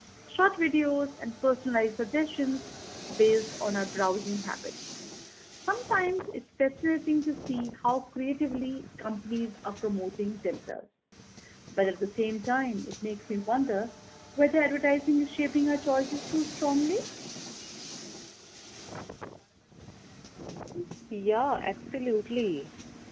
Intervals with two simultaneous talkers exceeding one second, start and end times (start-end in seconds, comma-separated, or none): none